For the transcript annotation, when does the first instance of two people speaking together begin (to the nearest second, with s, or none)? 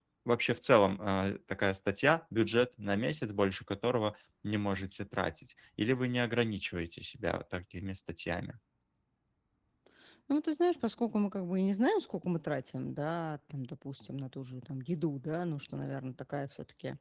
none